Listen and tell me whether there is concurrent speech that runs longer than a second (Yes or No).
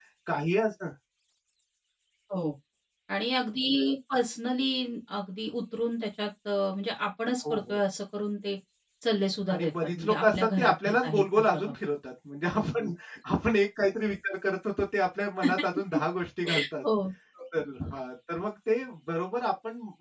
Yes